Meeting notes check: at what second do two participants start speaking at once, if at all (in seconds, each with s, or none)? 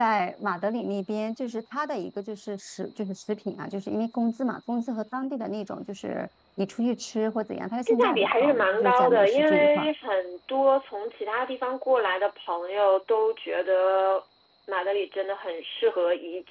7.9 s